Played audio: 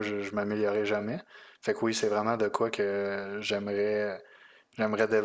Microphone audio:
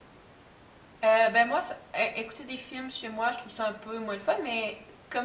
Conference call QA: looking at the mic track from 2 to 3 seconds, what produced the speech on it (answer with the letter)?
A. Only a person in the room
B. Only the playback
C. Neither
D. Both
A